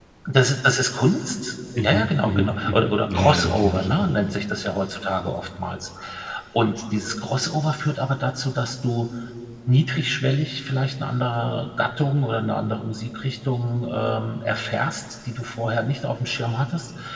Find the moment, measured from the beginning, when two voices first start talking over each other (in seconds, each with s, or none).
1.7 s